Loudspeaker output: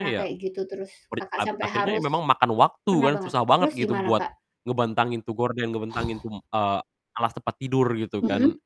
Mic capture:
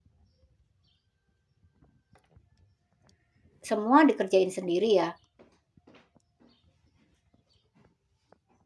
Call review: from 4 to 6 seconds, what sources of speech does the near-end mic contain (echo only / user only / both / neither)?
user only